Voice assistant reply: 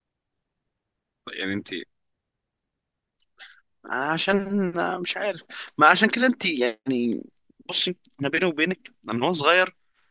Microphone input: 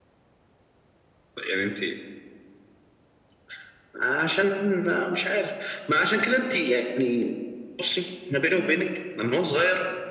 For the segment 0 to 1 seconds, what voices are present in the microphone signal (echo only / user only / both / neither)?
neither